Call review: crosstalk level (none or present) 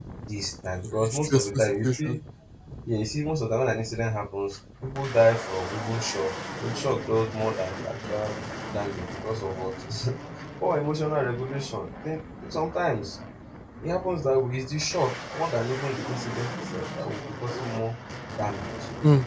present